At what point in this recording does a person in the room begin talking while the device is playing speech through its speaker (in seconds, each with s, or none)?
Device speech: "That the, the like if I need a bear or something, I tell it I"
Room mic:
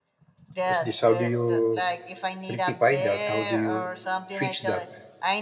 0.7 s